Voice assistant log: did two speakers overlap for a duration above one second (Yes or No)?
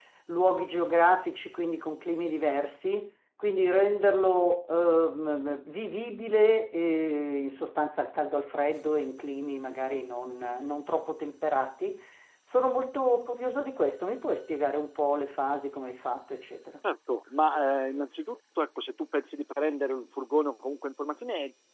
No